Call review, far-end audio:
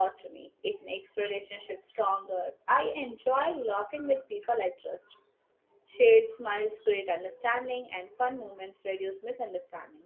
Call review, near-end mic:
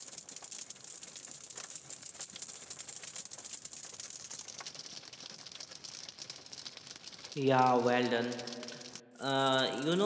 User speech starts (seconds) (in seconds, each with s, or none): 7.3 s